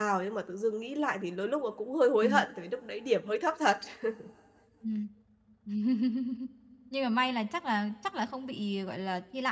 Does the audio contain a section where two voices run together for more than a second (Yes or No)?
No